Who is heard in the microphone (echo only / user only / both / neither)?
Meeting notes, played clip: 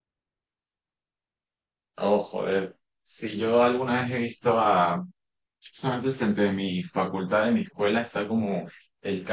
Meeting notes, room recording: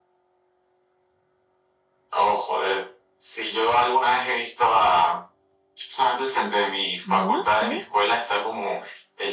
both